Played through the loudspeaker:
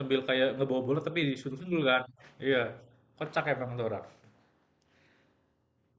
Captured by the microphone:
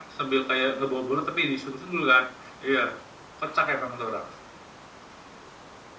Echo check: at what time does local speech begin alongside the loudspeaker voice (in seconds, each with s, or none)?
none